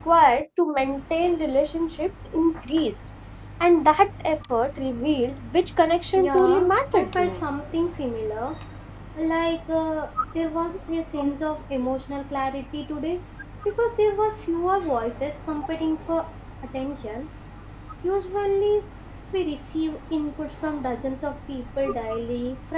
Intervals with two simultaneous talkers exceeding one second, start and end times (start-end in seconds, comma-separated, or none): 6.2-7.4